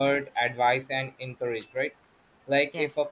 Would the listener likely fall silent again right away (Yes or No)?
Yes